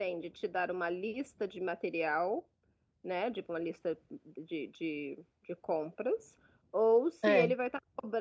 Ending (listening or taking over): listening